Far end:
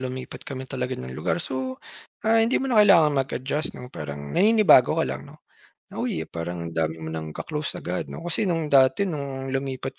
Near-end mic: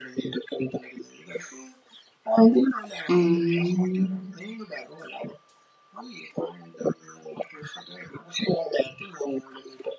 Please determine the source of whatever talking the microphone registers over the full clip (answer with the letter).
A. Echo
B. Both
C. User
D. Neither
B